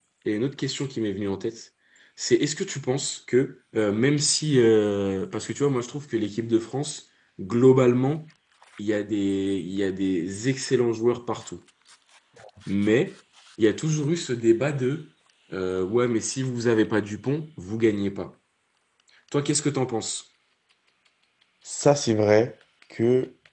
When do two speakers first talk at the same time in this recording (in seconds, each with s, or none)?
none